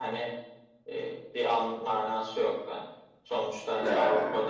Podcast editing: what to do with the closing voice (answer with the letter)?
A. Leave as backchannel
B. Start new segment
A